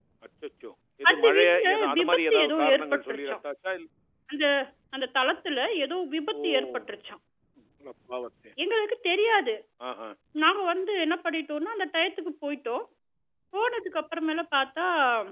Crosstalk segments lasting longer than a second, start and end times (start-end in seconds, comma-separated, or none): 1.1-3.4